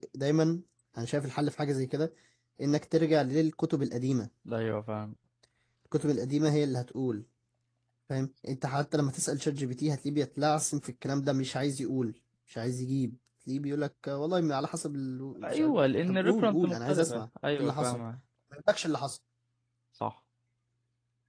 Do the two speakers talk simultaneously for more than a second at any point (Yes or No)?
Yes